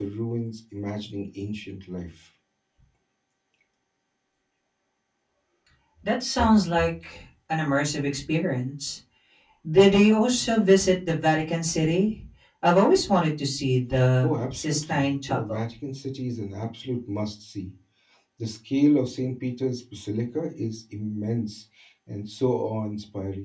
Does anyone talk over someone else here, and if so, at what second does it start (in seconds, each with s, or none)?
14.2 s